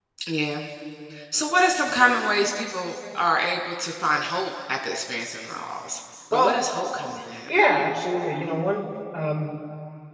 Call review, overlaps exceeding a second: none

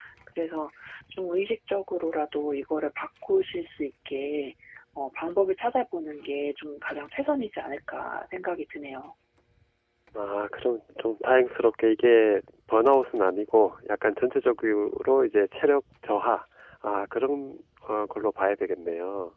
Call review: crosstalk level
none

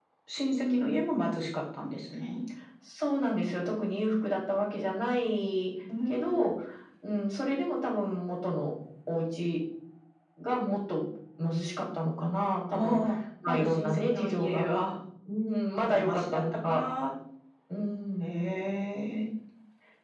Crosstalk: present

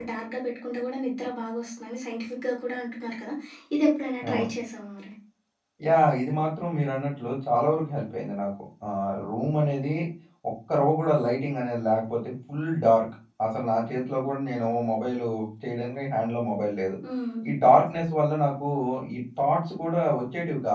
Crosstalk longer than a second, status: none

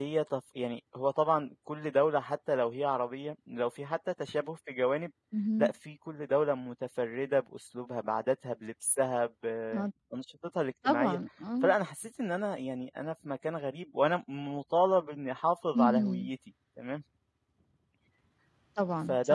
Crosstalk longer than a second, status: none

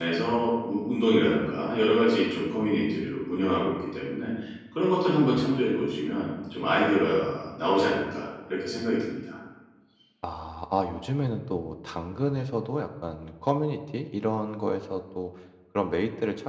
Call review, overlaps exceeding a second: none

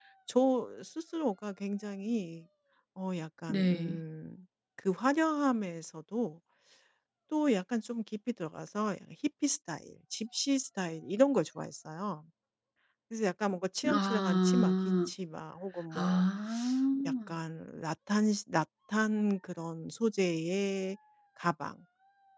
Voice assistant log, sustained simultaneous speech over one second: present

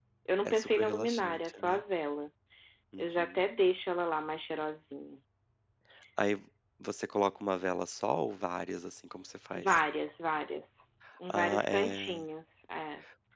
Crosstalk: present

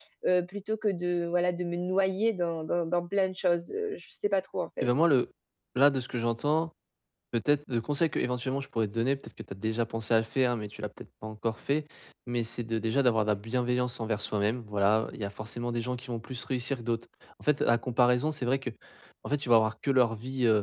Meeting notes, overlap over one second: none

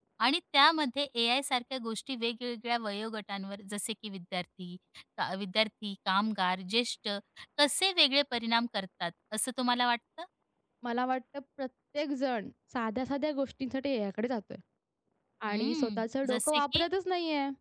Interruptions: present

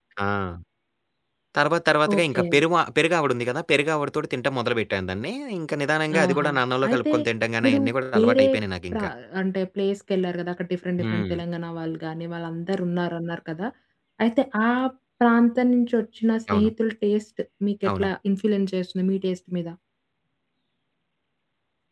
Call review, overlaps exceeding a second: none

